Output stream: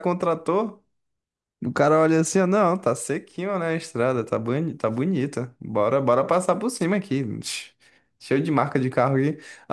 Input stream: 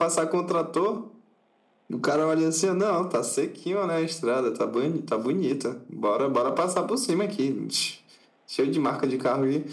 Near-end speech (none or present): none